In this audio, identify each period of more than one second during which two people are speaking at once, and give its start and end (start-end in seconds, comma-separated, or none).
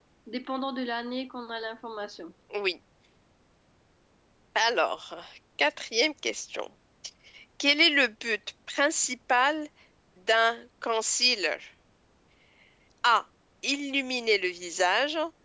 none